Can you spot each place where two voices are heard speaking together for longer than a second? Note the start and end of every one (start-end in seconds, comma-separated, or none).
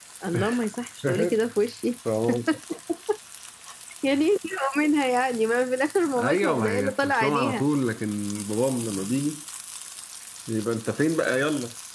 6.2-7.6